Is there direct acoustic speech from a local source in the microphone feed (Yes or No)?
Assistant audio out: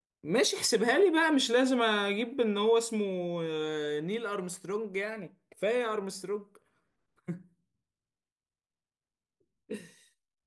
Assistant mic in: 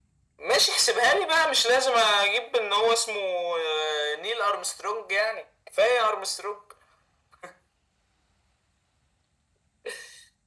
No